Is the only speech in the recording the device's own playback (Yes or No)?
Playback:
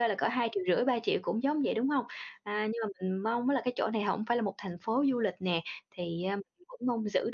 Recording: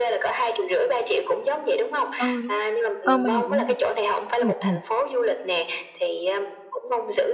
No